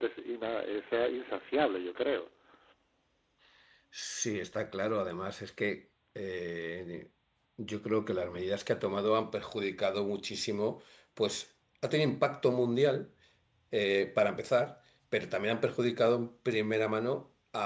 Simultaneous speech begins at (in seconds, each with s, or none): none